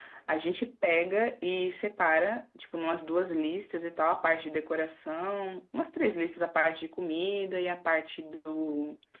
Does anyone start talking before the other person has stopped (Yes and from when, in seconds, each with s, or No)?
No